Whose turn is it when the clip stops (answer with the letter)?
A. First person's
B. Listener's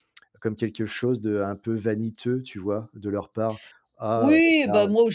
B